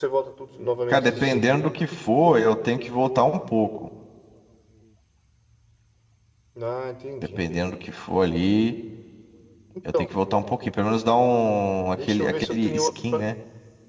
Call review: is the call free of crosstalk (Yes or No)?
No